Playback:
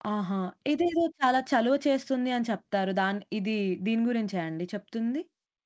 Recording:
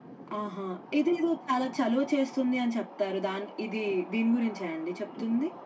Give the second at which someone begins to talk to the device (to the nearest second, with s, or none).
none